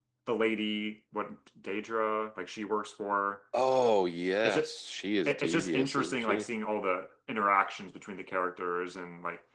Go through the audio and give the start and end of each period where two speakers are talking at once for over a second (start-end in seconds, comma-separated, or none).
5.3-6.5